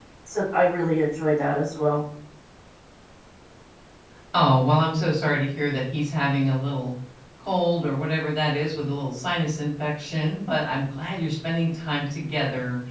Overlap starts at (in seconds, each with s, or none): none